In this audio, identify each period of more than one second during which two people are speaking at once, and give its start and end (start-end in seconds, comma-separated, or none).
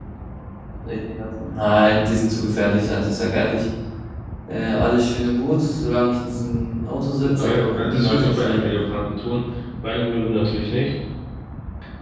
7.2-8.6